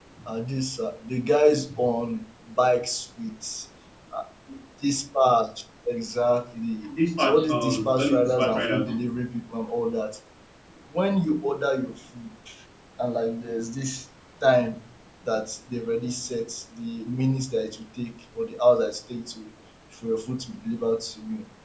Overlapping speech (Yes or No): Yes